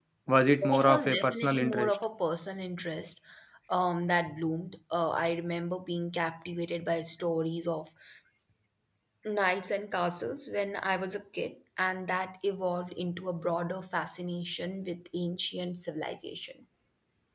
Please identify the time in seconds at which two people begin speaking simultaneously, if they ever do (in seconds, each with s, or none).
0.7 s